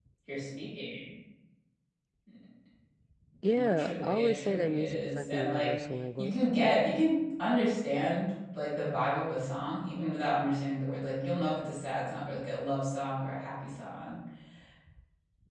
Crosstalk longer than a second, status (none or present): present